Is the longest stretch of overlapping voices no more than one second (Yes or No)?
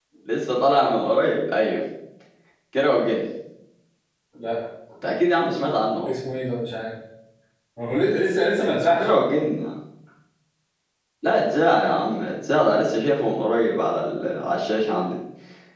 Yes